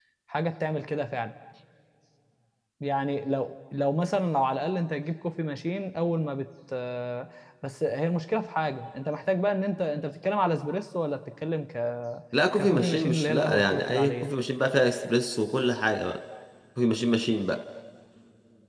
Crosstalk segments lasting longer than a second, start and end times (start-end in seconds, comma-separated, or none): 12.6-14.3